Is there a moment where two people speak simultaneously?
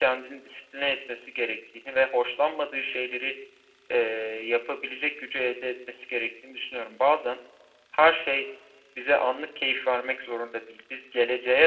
No

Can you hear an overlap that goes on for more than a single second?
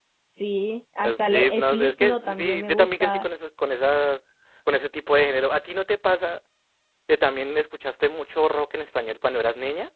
Yes, from 1.0 s

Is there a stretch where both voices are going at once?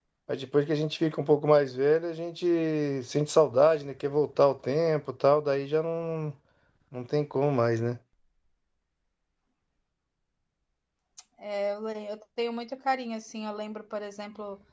No

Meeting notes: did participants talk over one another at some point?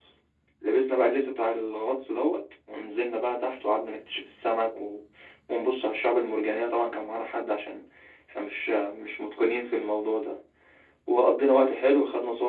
No

